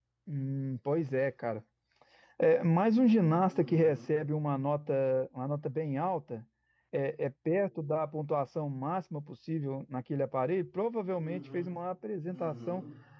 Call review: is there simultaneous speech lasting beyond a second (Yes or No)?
No